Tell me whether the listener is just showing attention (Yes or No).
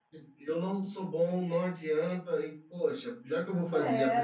No